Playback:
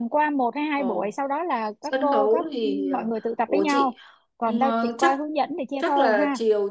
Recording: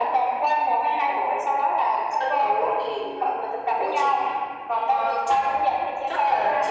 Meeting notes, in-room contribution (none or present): none